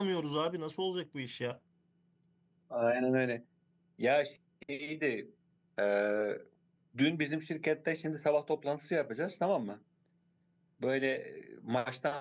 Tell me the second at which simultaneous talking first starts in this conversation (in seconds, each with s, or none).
none